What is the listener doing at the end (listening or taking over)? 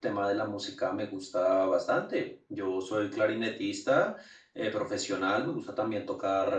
listening